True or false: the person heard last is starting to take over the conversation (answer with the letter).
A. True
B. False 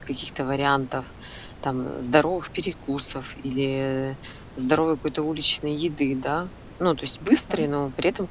B